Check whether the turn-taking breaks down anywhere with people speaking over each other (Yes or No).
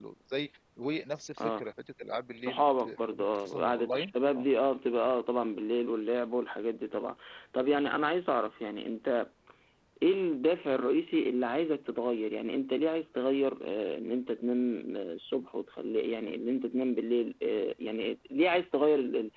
Yes